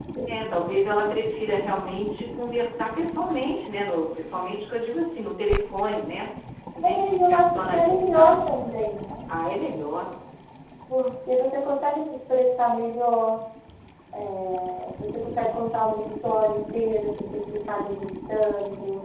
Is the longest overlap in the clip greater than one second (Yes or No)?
Yes